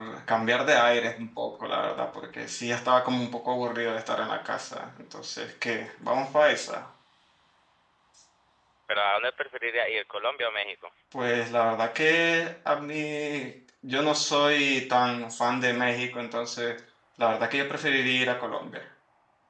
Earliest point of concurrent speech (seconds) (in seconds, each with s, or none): none